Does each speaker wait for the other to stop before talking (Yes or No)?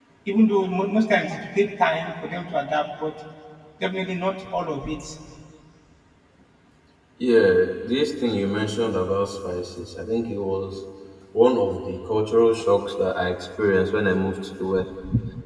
Yes